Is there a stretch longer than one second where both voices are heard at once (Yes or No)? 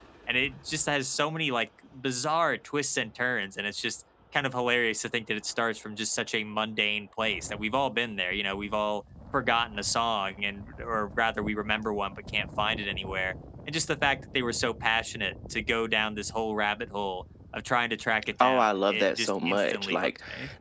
Yes